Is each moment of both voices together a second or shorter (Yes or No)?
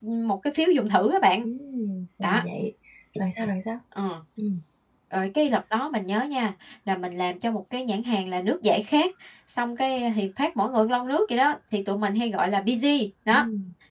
Yes